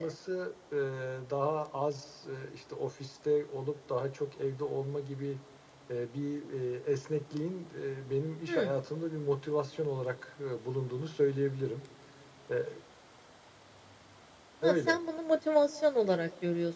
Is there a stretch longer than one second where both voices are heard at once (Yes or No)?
No